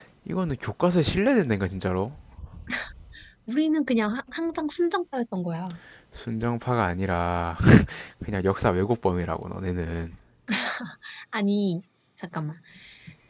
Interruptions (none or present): none